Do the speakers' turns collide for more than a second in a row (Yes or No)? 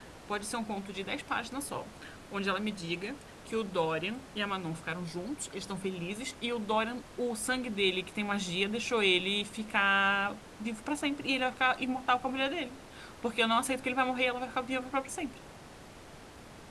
No